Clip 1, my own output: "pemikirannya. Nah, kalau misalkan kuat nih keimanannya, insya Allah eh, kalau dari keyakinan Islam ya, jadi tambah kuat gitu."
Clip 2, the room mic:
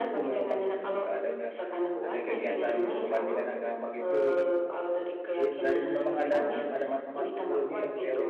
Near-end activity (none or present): present